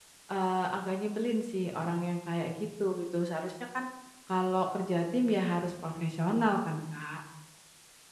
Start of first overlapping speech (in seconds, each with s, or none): none